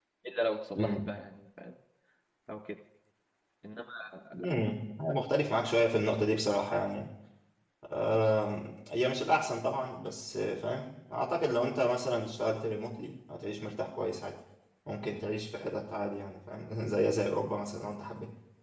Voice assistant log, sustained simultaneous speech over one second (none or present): none